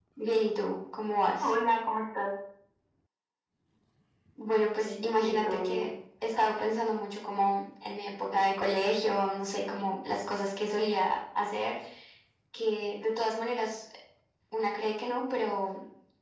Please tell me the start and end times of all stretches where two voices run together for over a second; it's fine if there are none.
4.6-5.9

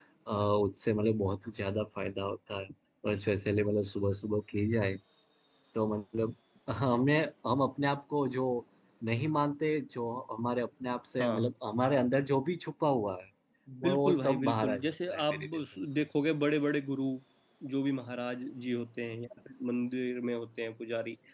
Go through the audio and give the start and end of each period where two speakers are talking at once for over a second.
13.8-16.0

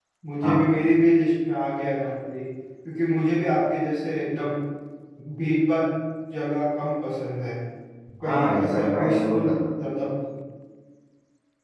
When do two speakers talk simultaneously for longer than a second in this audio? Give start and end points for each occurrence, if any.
8.2-9.5

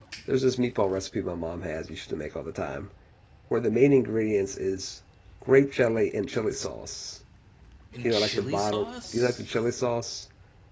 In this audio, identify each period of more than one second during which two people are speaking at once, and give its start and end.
8.0-9.5

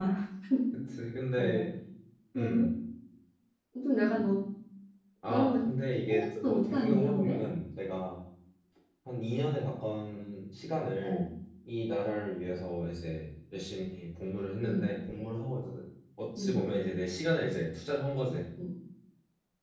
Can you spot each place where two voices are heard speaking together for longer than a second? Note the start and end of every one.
6.1-7.4

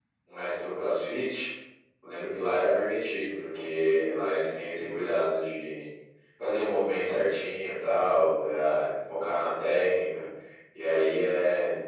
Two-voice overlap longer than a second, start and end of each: none

